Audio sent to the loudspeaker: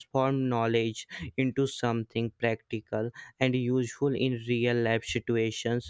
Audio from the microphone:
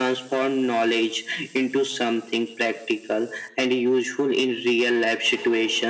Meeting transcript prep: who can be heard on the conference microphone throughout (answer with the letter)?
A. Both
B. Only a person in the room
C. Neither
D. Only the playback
D